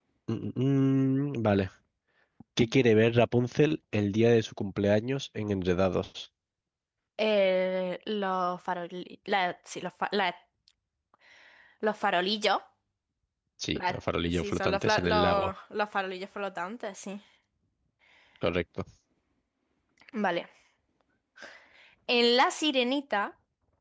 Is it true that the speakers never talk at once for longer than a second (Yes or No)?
No